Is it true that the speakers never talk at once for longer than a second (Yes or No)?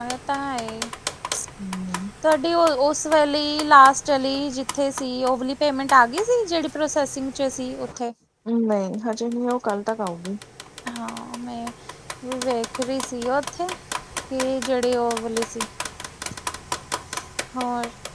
Yes